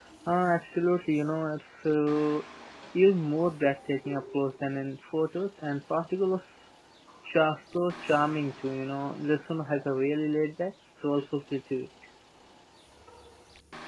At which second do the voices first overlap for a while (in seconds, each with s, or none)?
none